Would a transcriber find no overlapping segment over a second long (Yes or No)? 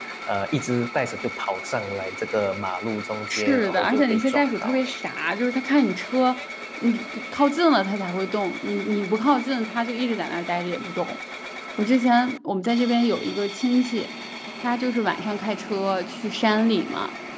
No